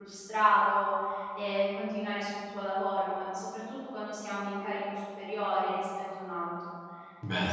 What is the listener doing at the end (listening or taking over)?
listening